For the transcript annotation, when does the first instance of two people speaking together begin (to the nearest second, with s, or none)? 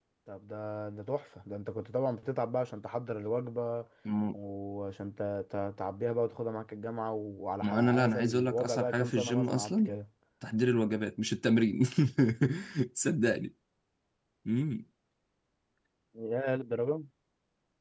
8 s